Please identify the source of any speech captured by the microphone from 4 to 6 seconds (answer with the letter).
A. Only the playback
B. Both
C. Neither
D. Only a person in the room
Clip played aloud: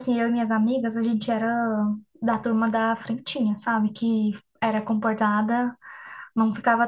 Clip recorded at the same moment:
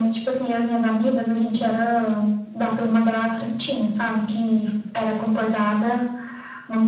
A